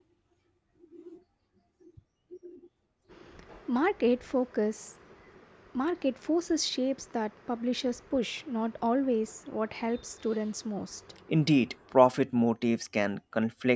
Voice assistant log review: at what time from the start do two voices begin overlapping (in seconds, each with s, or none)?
none